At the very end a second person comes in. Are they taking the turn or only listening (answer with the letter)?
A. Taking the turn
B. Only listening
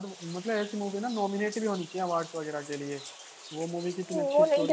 A